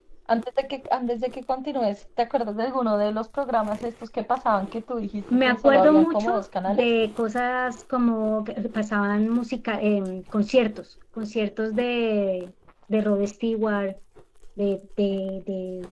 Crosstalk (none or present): present